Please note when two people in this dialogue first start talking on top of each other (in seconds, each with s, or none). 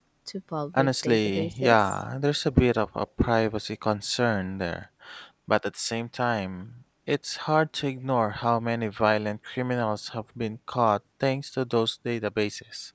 0.7 s